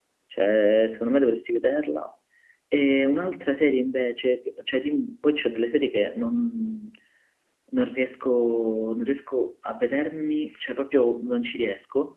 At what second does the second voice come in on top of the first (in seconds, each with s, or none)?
none